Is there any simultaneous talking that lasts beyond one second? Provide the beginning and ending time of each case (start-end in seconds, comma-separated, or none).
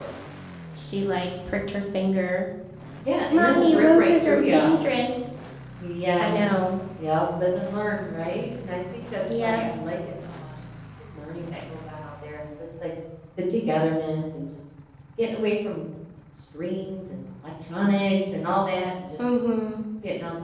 3.2-4.8